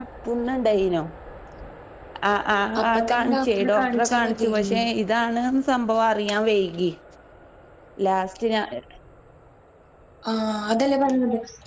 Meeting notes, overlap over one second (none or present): present